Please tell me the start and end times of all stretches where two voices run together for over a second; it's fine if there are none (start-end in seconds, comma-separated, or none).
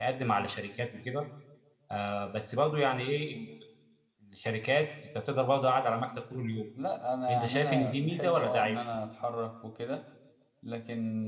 7.3-8.8